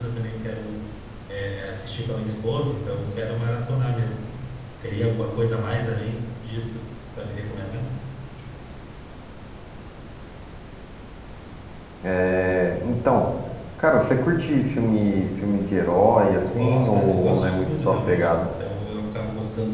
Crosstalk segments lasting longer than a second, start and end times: 16.5-18.3

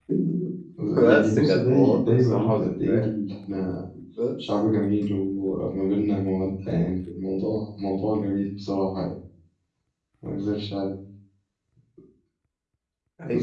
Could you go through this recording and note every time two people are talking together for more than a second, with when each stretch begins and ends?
1.1-3.1

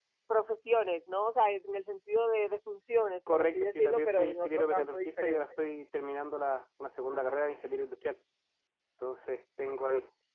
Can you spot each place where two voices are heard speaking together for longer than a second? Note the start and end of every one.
3.3-5.4

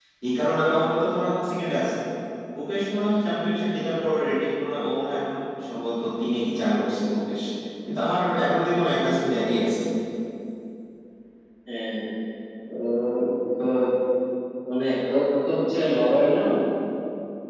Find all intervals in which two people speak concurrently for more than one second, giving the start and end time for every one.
none

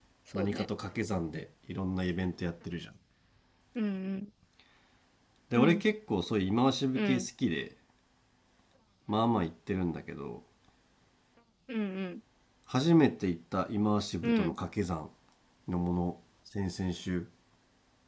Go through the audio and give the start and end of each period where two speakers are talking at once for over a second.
none

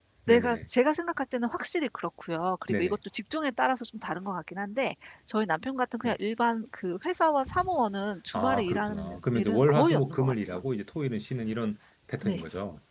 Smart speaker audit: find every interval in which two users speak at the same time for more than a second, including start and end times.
8.3-10.6

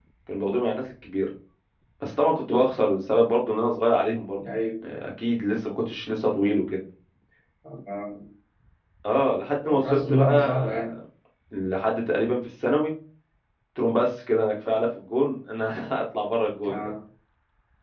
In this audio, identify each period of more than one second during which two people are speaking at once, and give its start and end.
9.6-10.9

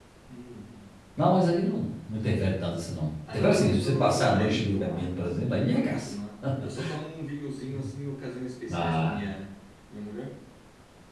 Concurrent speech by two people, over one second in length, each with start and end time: 3.3-5.1

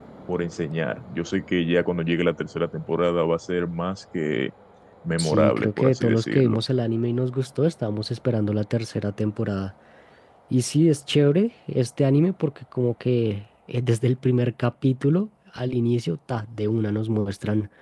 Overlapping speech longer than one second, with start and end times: 5.2-6.6

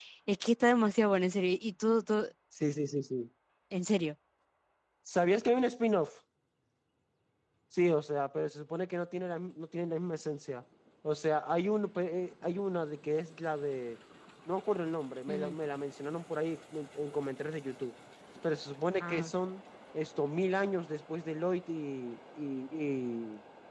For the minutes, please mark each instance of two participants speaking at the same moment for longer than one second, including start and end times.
none

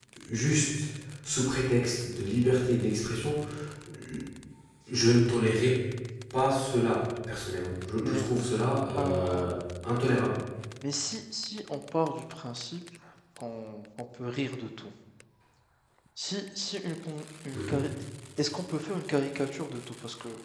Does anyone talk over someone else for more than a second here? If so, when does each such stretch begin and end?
none

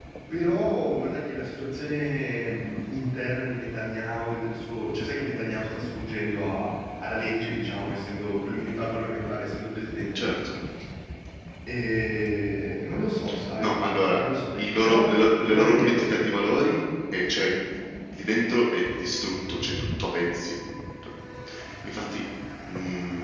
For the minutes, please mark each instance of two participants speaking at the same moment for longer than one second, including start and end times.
14.1-16.1

